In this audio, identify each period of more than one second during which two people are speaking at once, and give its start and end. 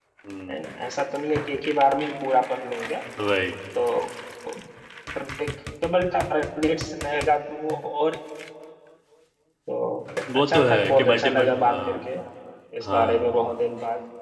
10.3-12.0

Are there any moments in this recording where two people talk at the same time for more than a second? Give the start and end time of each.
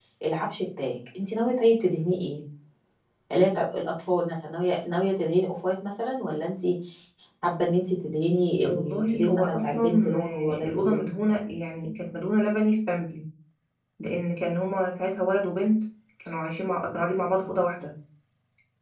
8.6-11.1

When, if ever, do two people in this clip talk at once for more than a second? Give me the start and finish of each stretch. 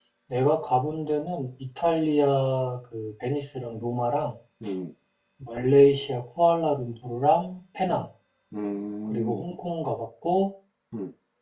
none

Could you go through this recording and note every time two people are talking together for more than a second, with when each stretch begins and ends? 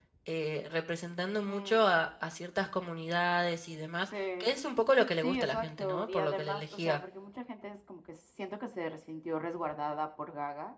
5.2-7.0

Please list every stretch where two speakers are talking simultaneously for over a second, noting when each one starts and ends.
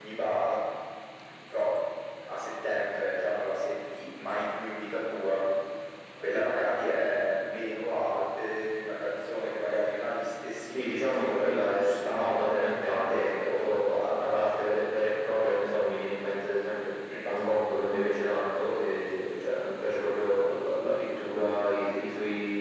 10.7-13.6

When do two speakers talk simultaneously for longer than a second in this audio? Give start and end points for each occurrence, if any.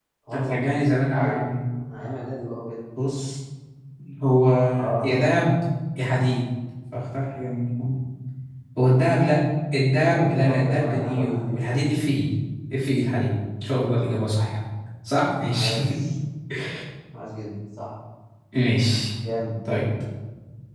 10.1-11.6

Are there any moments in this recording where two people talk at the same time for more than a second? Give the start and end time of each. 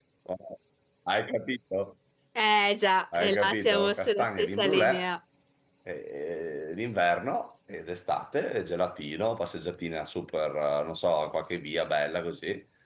3.1-5.1

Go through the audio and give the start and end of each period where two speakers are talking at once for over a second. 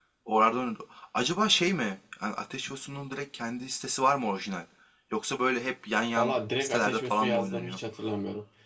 6.2-7.8

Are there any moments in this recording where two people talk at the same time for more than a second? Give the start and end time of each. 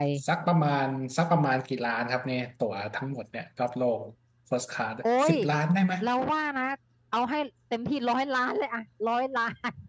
none

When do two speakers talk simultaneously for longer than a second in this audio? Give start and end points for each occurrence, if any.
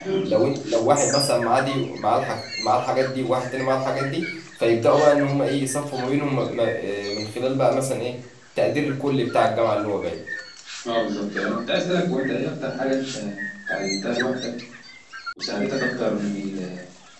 none

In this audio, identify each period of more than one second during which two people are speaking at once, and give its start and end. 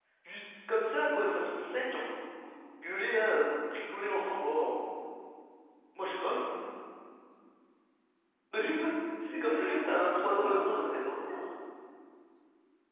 9.2-10.8

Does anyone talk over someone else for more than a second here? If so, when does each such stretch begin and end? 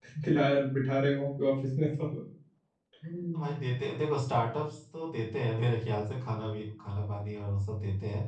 none

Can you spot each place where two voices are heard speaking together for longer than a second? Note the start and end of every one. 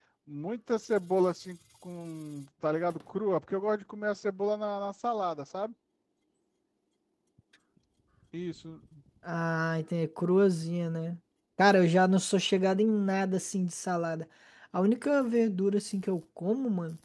none

